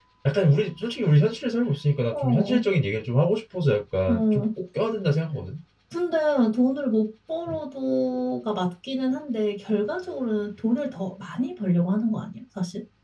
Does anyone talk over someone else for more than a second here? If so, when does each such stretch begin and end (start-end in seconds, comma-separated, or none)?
none